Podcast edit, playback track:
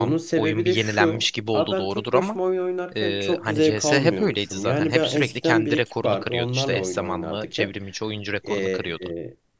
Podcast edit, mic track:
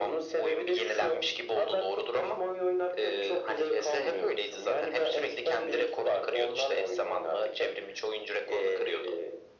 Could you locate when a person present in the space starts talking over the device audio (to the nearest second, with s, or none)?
none